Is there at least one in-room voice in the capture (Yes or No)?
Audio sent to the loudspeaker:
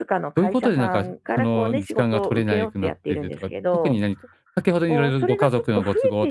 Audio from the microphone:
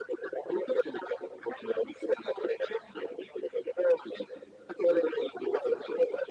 No